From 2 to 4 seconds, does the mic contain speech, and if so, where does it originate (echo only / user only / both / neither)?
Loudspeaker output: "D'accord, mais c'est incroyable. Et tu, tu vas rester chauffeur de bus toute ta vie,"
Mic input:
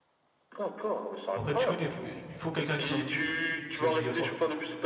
both